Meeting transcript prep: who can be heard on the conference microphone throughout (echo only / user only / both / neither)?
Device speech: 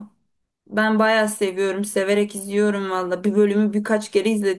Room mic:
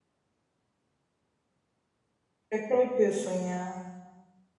user only